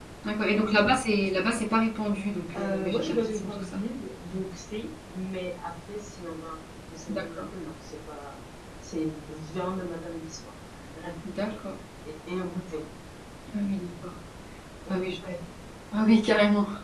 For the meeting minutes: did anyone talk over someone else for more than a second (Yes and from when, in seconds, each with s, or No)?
Yes, from 2.5 s